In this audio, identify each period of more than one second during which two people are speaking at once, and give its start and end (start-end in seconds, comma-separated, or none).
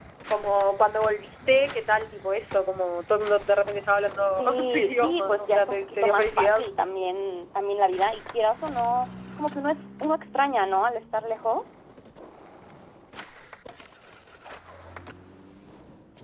4.4-6.6